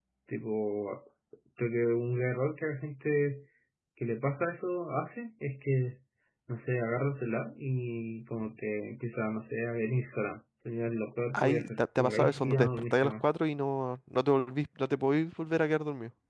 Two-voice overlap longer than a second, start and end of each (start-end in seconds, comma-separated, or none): 11.3-13.2